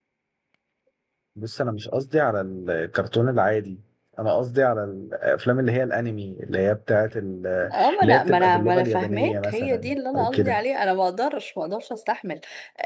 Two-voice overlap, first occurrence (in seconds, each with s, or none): 7.6 s